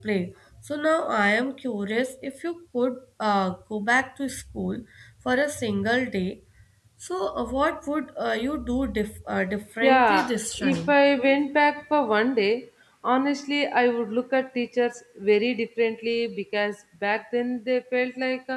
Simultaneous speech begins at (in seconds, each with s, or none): 9.8 s